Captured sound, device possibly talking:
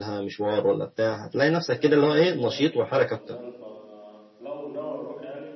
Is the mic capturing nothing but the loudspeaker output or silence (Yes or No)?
No